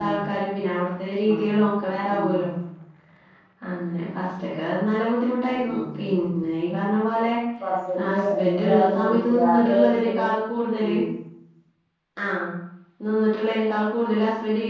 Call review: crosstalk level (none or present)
present